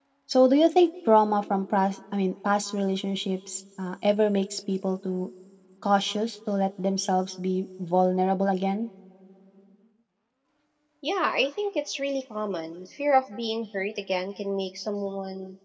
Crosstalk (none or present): none